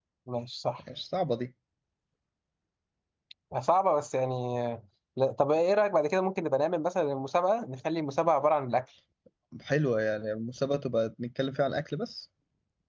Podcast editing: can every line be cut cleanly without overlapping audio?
Yes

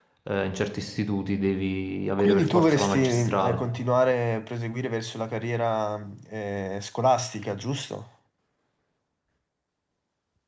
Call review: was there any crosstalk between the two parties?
Yes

